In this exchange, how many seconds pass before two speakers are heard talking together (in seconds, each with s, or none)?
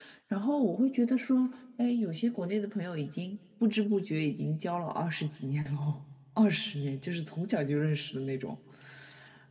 none